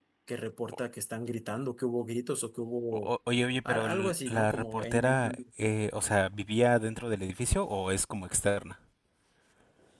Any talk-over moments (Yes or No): Yes